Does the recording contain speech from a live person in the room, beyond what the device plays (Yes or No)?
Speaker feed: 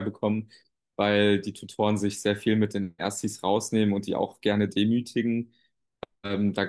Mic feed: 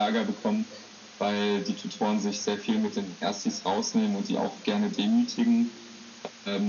No